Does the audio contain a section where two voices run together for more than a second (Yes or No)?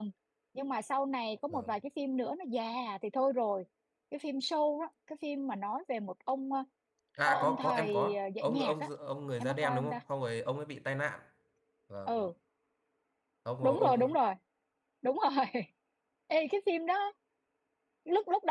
Yes